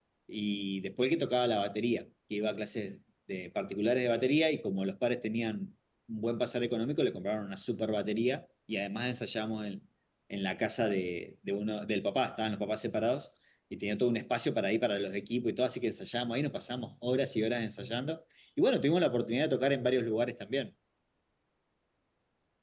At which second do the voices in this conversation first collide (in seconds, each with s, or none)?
none